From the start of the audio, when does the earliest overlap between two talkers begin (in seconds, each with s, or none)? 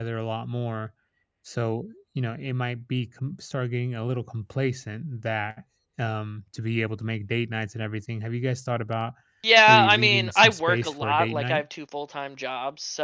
9.7 s